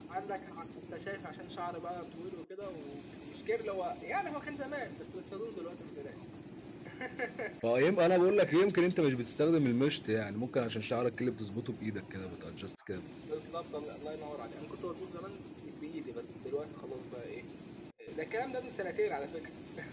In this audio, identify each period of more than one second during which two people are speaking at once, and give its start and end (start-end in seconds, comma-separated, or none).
none